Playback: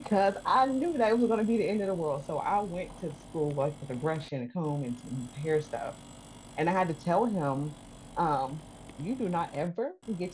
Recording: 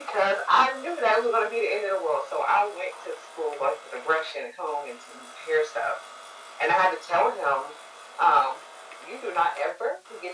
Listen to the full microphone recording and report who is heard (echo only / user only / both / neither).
echo only